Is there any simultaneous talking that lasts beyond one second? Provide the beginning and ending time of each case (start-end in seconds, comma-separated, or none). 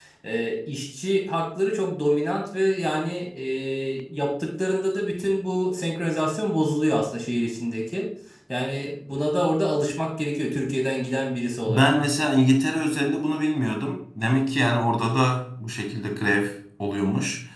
none